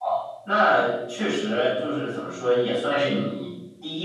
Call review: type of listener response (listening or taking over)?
listening